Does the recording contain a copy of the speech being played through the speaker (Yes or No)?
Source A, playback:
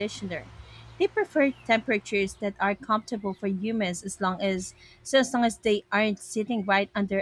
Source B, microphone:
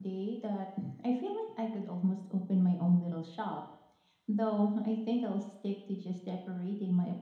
No